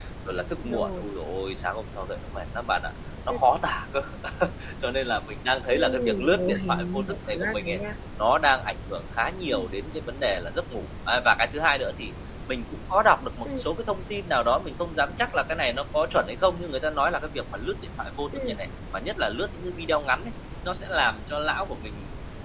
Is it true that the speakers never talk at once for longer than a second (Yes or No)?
No